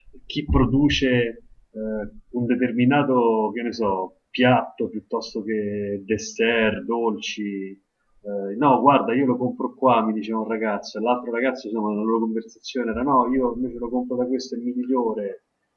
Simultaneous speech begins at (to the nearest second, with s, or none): none